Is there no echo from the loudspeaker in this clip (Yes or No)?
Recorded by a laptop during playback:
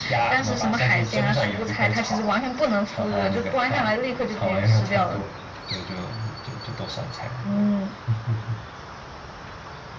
No